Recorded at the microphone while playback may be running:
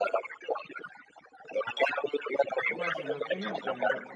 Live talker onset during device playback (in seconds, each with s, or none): 2.7 s